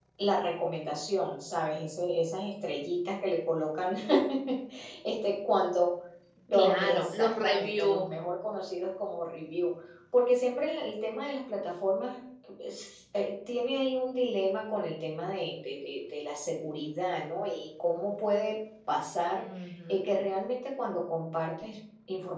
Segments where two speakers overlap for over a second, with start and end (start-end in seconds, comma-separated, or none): 6.5-8.1